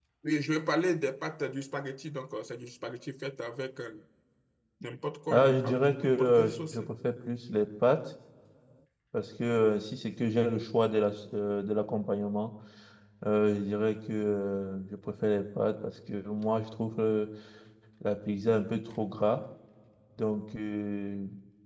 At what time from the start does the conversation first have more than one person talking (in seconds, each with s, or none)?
5.3 s